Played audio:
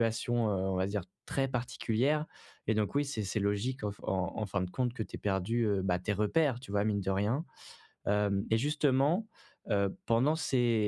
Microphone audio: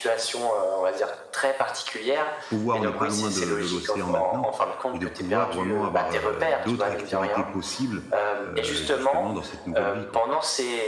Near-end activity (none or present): present